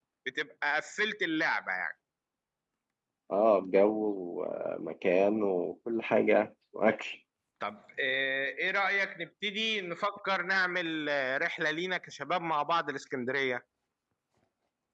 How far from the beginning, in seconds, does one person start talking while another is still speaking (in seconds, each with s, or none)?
none